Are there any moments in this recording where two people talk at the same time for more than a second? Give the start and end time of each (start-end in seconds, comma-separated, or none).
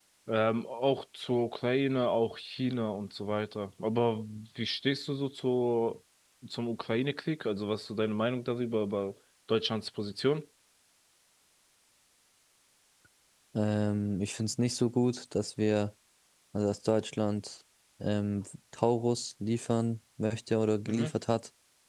none